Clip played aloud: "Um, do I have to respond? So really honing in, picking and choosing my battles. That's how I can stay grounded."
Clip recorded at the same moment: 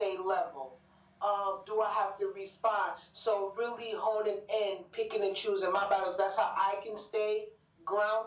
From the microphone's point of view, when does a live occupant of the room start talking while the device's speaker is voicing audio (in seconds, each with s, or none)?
none